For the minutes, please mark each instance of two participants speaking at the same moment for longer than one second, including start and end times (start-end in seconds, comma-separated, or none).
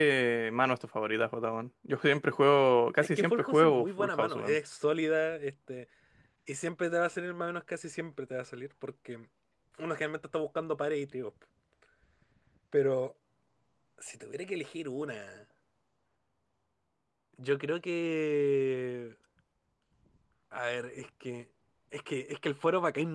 3.2-4.6